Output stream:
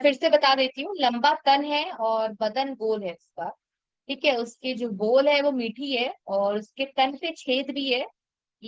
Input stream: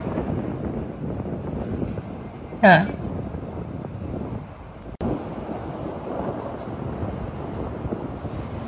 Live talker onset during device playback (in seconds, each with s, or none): 2.6 s